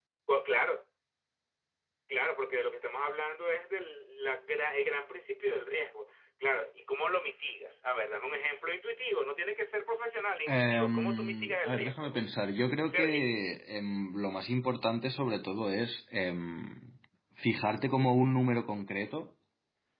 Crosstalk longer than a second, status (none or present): present